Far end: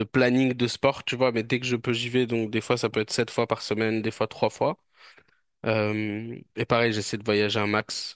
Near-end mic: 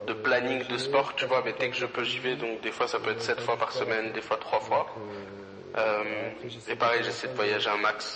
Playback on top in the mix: Yes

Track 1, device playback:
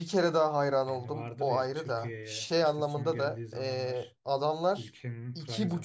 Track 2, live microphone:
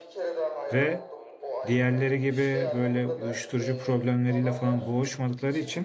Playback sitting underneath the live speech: Yes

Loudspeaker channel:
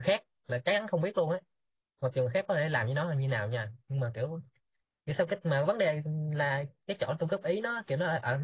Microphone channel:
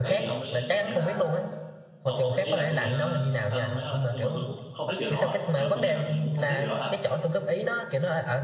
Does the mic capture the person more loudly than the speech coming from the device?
No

